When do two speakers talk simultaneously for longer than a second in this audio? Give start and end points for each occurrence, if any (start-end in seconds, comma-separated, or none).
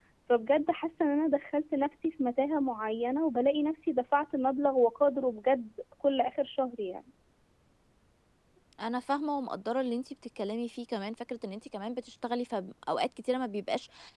none